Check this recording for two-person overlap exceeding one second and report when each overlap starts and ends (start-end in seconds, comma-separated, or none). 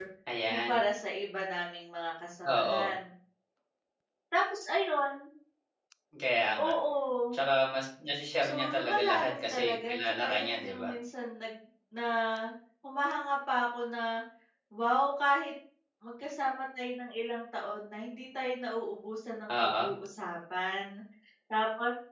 8.4-10.9